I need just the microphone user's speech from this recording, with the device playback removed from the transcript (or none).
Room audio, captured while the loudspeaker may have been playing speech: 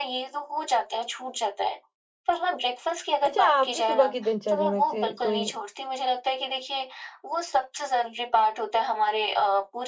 अच्छा आपकी सुबह की दिनचर्या में से कोई